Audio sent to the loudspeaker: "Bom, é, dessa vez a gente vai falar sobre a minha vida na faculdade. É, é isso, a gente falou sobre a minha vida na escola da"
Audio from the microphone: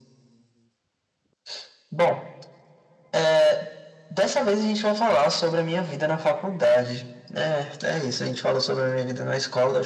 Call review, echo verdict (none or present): present